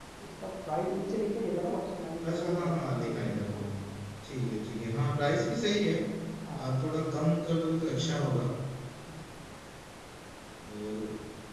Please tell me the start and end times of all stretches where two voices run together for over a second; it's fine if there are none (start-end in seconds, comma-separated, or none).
2.3-3.6